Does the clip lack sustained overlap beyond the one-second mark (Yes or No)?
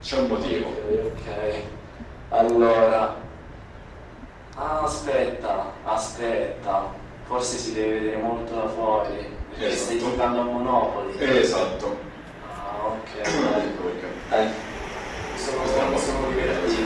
No